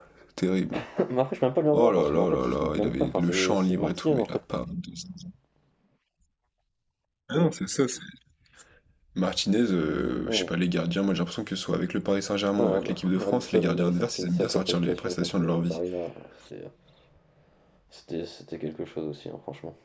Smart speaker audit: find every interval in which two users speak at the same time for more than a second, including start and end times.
1.7-4.3, 12.6-15.8

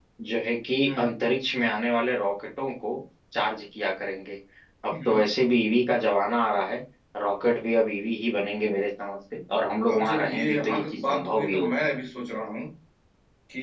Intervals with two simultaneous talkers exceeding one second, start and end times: 9.9-11.9

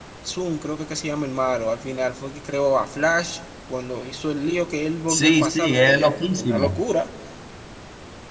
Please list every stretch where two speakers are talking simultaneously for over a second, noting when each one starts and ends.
5.1-6.8

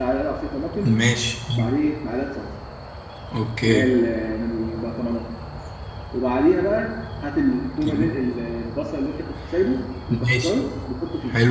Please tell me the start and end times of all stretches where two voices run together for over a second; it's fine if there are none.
none

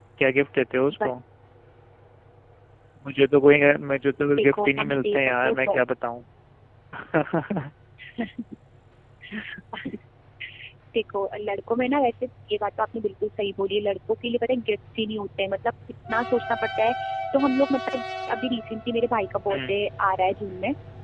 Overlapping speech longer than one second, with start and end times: 4.3-5.6

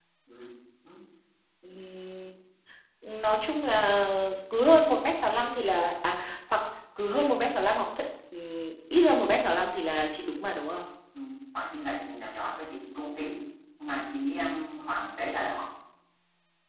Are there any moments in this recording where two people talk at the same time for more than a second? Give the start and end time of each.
none

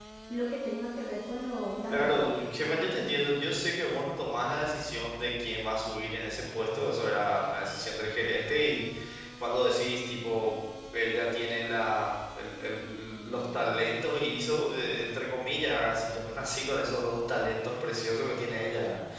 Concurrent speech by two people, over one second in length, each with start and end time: none

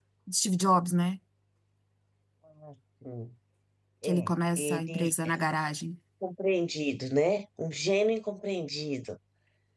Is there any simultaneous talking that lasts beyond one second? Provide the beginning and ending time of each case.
4.0-5.3

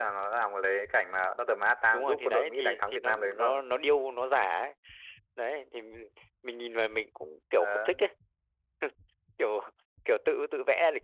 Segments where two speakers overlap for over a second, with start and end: 1.9-3.6

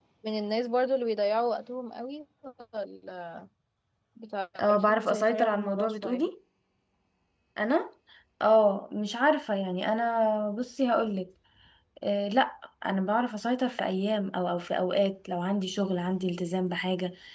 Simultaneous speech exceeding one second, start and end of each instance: 4.7-6.3

